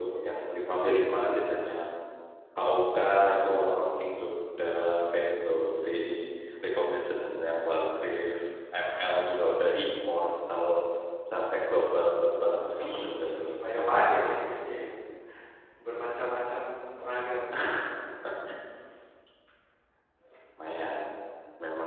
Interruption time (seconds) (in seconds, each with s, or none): 12.8 s